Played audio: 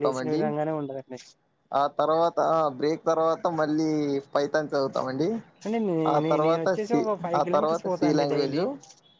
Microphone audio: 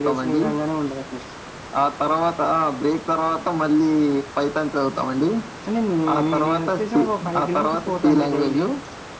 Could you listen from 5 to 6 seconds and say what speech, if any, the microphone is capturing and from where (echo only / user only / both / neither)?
echo only